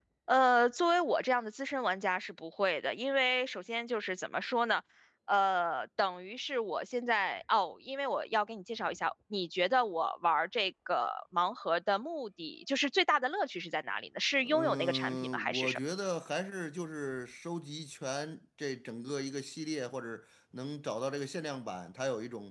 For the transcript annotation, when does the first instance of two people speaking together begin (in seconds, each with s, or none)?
14.4 s